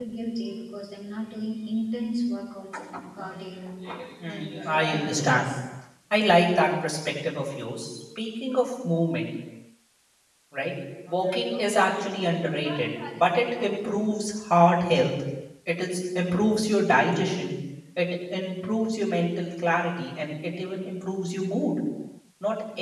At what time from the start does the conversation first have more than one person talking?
4 s

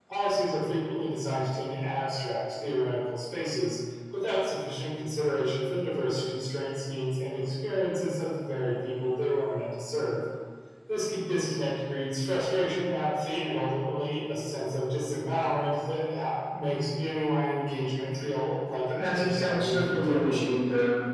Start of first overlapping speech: 19 s

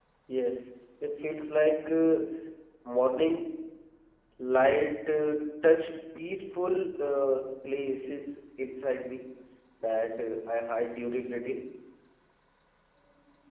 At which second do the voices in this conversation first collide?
none

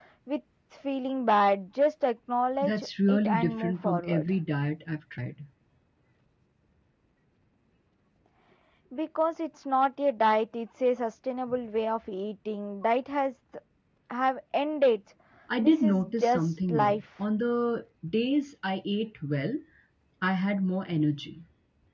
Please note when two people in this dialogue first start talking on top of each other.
3 s

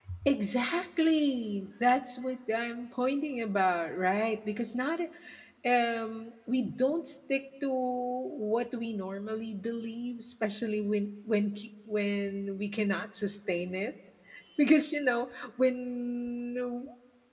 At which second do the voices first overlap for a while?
none

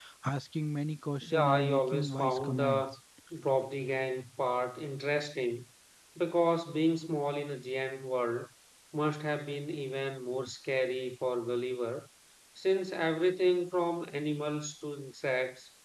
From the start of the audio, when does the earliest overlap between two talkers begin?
1 s

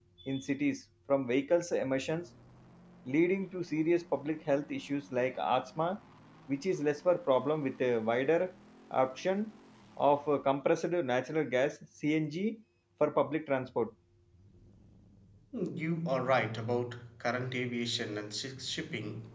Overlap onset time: none

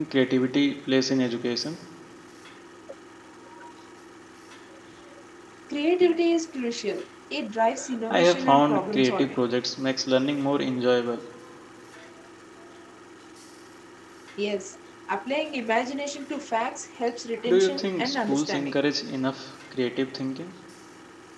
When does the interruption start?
8 s

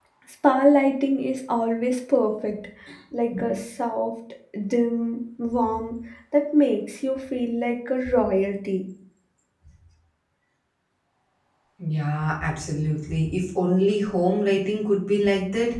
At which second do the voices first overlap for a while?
none

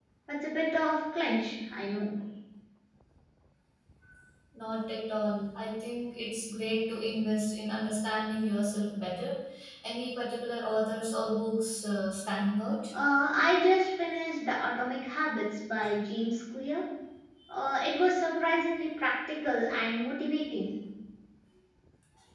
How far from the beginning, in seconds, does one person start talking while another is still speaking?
none

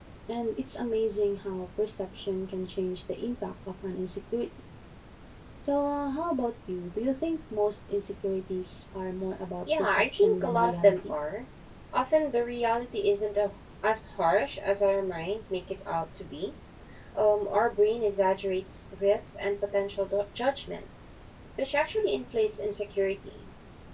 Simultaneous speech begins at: 10 s

